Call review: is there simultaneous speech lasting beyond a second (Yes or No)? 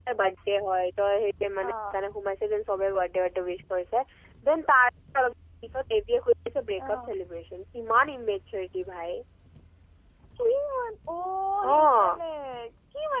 No